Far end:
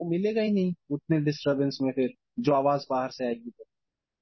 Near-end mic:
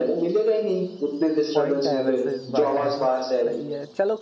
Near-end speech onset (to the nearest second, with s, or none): 2 s